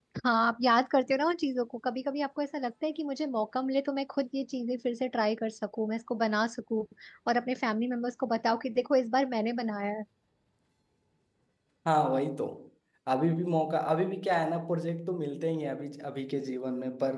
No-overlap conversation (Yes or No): Yes